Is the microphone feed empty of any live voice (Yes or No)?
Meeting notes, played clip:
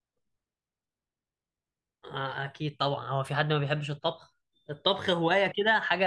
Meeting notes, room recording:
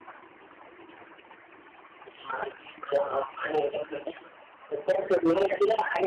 Yes